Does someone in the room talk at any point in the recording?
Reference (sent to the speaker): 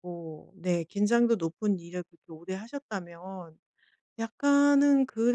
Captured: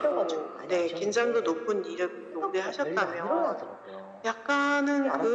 Yes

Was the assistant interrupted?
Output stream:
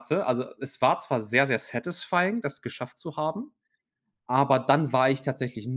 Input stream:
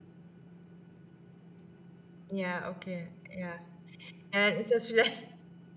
Yes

